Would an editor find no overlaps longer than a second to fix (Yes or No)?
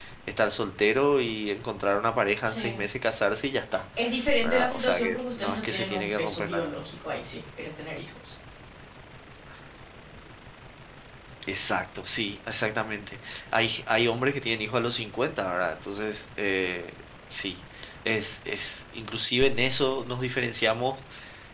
No